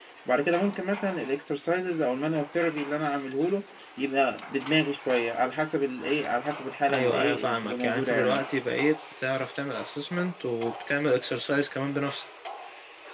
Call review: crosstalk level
present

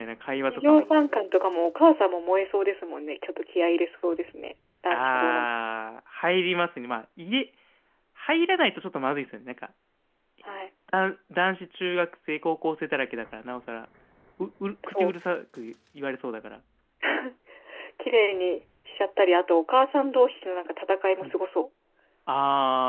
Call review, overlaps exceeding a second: none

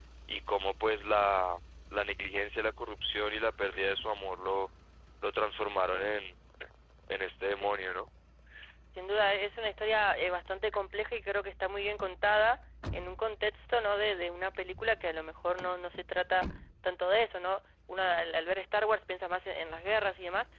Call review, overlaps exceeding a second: none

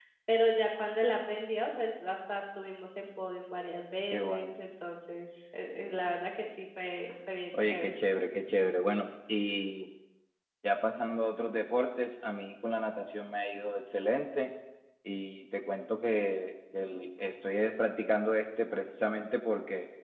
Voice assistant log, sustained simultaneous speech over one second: none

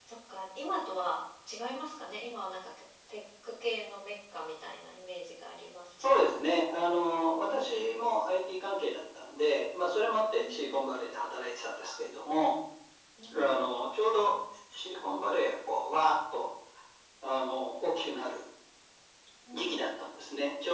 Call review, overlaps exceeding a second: none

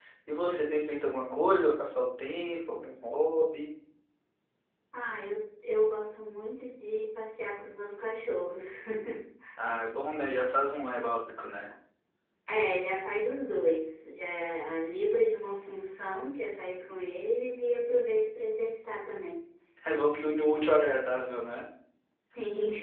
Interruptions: none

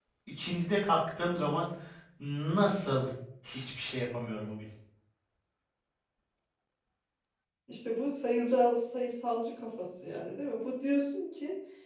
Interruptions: none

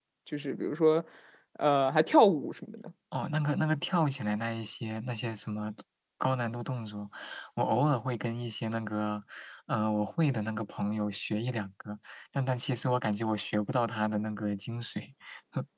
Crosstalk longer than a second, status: none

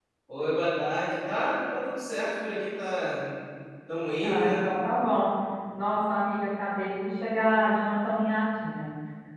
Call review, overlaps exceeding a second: none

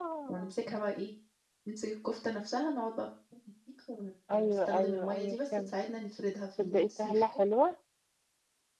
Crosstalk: present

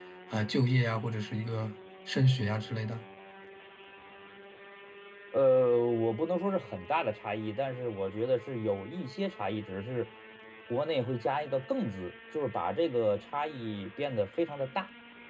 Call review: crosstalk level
none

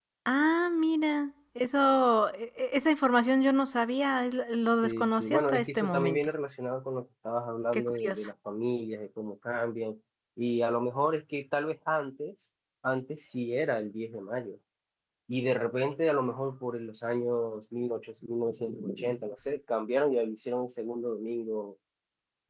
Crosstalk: present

